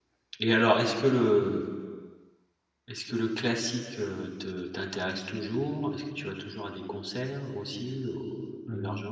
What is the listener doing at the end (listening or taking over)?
taking over